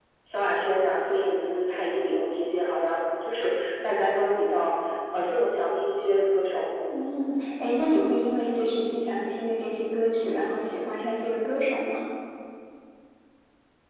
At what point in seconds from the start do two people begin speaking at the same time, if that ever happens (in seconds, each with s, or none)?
none